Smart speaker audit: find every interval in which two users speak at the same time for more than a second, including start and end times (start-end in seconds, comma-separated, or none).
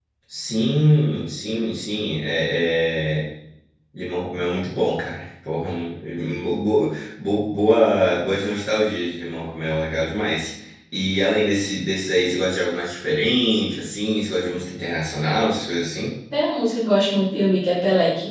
none